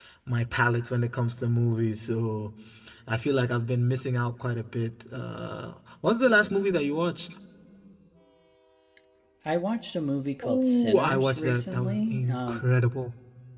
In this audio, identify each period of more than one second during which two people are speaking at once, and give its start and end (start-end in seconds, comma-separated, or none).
10.4-12.6